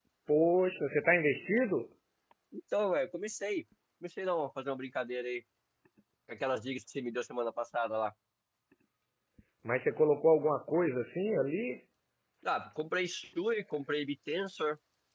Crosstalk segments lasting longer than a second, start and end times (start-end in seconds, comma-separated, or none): none